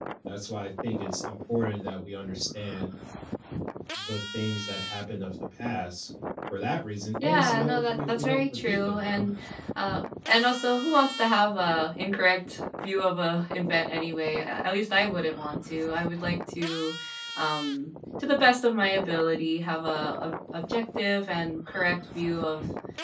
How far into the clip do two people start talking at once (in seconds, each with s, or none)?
7.2 s